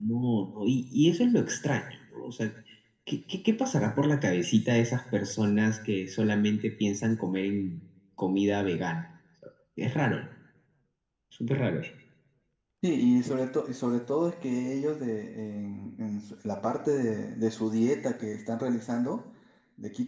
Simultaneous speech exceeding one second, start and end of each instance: none

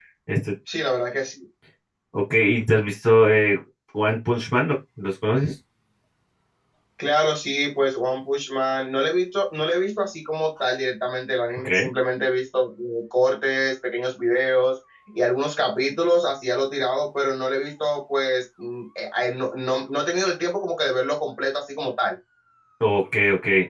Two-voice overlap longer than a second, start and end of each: none

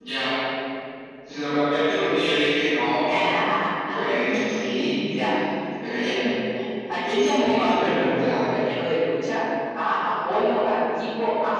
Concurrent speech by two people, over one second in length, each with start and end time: 7.2-8.4

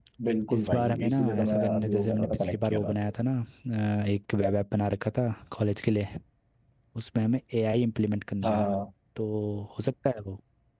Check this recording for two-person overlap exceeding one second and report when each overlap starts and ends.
0.5-2.9

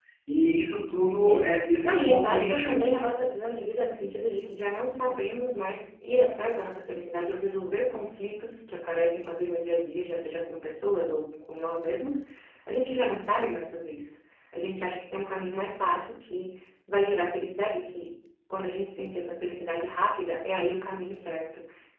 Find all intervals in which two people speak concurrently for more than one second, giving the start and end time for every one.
1.2-2.9

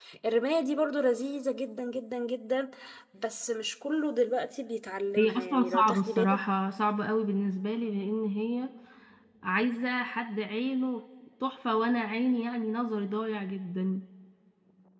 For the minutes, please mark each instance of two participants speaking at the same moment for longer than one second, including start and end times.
5.2-6.4

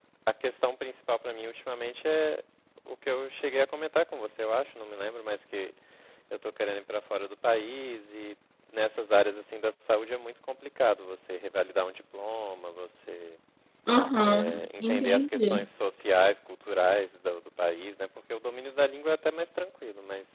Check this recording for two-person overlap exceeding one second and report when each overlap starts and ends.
14.2-15.6

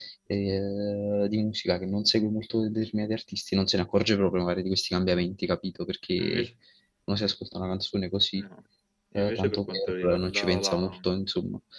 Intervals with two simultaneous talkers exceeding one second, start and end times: 9.2-11.0

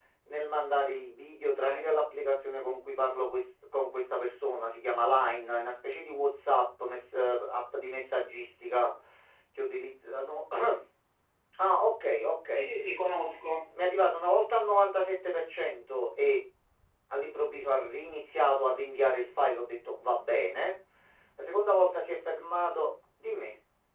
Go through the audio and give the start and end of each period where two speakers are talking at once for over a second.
none

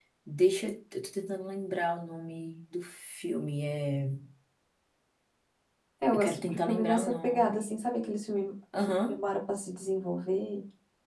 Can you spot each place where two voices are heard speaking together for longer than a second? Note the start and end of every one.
6.1-7.8

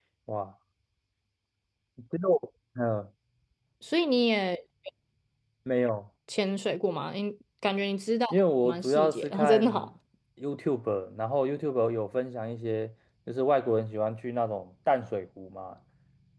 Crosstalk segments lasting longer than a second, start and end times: 8.6-9.9

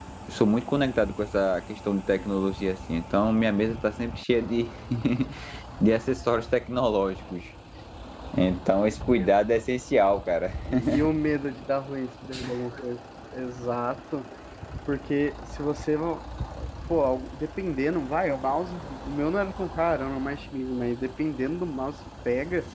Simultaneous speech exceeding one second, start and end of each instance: none

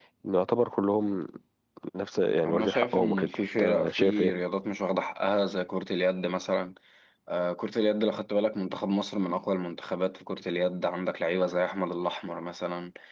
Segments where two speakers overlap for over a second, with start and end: 2.4-4.3

